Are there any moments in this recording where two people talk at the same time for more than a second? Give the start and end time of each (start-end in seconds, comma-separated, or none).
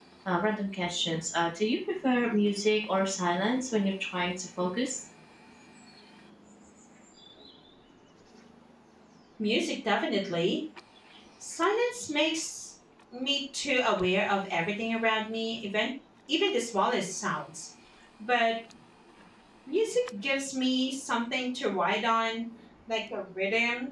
none